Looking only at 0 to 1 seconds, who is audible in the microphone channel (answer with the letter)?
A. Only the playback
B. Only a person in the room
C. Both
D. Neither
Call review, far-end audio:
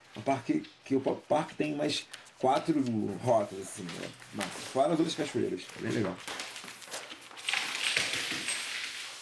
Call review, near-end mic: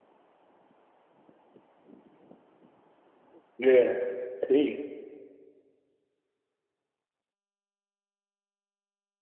D